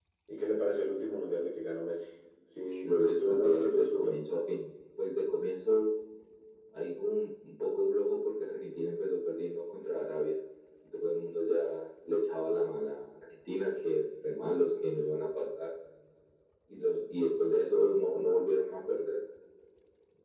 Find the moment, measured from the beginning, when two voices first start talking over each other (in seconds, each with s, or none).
2.6 s